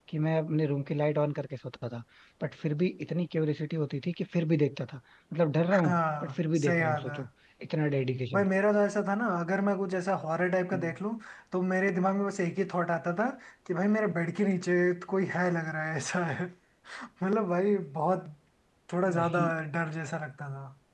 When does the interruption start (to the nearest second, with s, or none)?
6 s